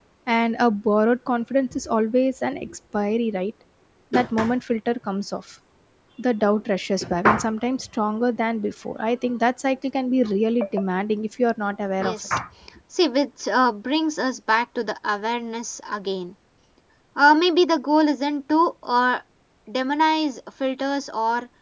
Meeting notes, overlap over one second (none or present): none